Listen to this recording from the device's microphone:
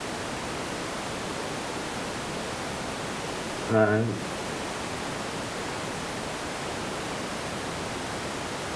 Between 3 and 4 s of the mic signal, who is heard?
user only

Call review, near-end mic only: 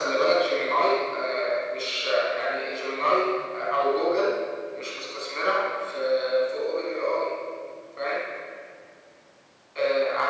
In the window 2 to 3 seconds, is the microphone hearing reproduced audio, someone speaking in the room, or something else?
echo only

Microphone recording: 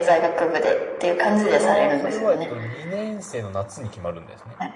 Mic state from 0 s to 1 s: echo only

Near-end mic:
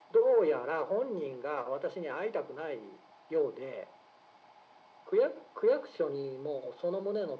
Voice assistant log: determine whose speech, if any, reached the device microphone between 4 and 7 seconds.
echo only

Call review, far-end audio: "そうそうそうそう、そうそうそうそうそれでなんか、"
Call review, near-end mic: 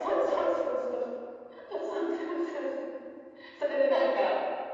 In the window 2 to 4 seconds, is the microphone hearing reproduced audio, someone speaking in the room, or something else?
echo only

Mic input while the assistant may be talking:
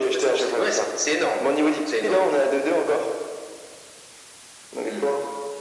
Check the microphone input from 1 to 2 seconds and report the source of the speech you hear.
echo only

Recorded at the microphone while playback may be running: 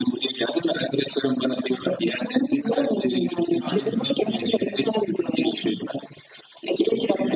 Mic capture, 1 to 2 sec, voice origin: echo only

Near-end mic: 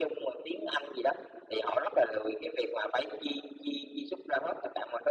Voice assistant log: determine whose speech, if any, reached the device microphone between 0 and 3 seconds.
echo only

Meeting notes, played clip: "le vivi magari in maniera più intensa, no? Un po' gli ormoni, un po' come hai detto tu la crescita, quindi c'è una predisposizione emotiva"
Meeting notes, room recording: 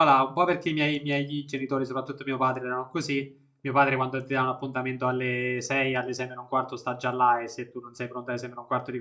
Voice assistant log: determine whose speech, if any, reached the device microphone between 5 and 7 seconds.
user only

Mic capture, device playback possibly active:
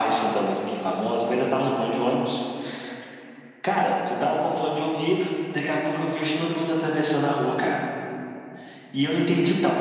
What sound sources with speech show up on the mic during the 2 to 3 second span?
echo only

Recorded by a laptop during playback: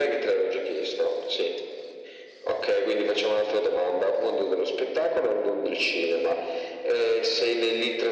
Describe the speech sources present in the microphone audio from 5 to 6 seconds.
echo only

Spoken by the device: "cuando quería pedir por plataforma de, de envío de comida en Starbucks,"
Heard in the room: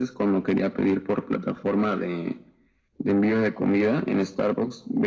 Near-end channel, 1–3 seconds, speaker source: echo only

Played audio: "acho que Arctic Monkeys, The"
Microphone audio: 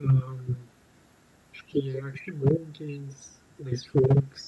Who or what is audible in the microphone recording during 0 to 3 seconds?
echo only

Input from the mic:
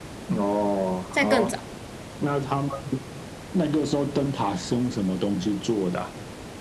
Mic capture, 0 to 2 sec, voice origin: both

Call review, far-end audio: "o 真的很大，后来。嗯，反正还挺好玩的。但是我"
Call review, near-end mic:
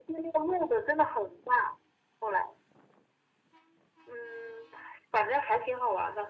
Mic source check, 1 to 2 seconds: echo only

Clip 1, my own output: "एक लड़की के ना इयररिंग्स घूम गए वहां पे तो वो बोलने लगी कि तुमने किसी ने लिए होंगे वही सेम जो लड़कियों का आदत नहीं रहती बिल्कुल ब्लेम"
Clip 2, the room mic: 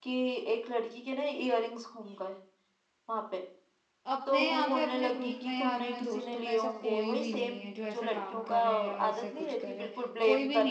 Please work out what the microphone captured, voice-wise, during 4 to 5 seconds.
both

